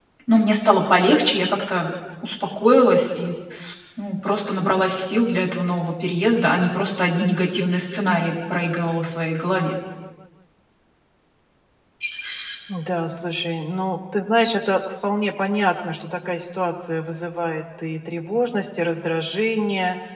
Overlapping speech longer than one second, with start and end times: none

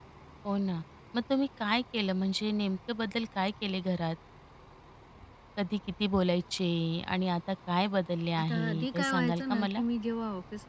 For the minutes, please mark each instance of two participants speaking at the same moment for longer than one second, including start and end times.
8.4-9.8

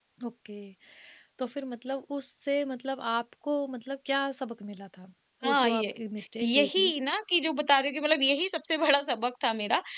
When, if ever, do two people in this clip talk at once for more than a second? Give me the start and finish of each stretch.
none

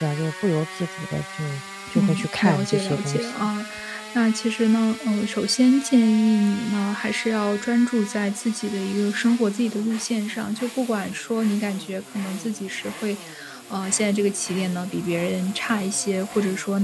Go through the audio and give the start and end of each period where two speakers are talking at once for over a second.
1.9-3.5

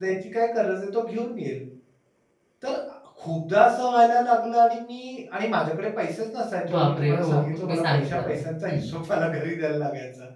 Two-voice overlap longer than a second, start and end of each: 6.7-8.8

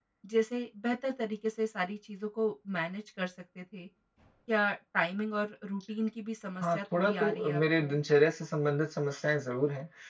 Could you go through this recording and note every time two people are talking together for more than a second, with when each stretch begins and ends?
6.6-8.0

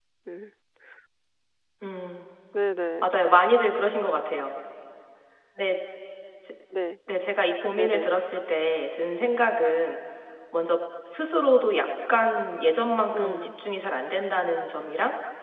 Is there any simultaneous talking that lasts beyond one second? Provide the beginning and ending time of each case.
none

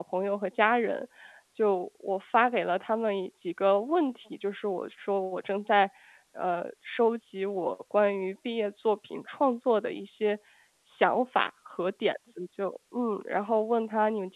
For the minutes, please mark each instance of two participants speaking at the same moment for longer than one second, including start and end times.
none

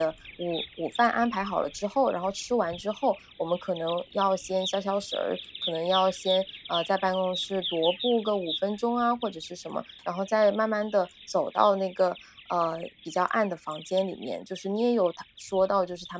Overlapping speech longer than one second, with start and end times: none

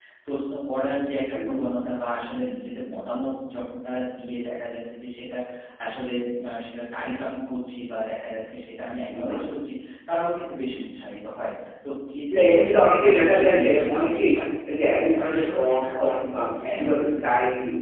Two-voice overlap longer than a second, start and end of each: 12.3-14.2, 14.9-16.1

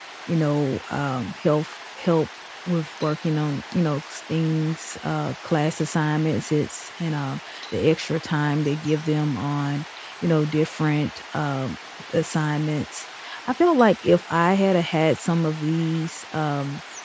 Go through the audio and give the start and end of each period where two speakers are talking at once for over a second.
none

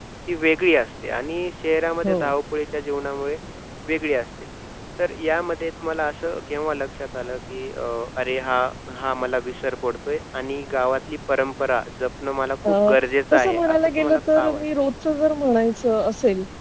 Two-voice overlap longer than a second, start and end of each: 13.3-14.6

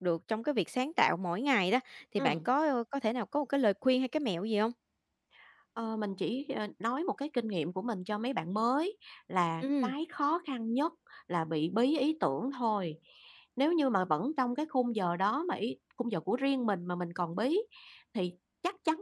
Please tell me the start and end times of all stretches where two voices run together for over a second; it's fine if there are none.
none

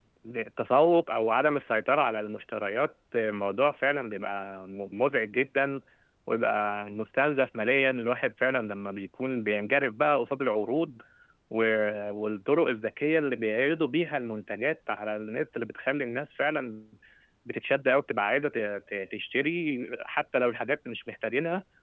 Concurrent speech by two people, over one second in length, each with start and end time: none

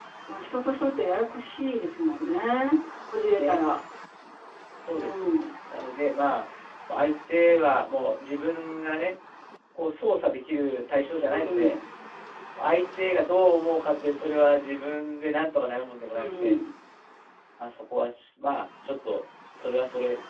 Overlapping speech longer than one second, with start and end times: none

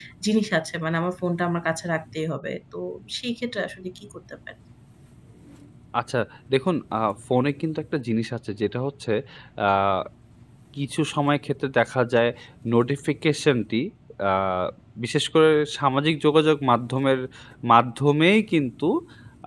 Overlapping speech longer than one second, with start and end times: none

